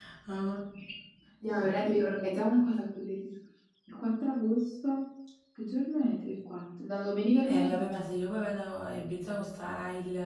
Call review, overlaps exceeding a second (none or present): none